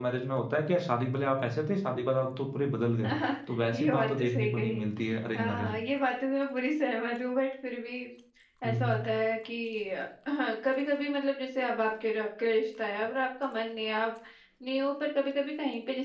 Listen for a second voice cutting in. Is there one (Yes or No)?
Yes